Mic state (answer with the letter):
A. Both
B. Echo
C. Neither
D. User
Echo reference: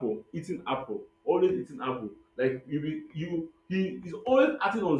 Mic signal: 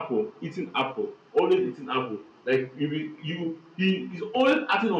B